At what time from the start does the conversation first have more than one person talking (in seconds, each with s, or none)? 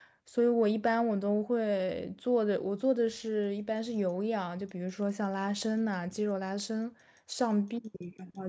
none